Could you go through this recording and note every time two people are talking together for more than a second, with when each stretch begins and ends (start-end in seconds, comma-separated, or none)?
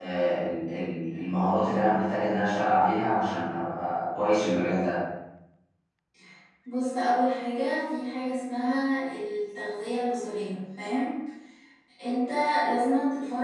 none